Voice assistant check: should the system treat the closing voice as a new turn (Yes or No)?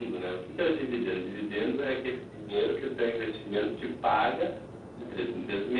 No